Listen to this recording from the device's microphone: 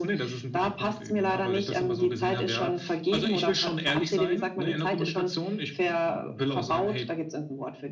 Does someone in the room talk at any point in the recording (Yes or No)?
No